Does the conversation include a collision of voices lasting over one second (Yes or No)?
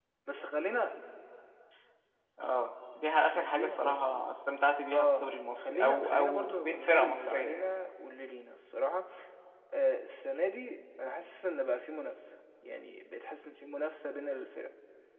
Yes